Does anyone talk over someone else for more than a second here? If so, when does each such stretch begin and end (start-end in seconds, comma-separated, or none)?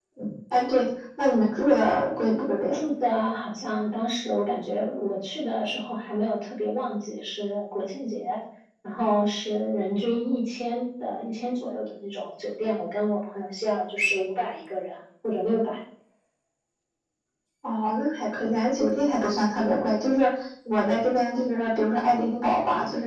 none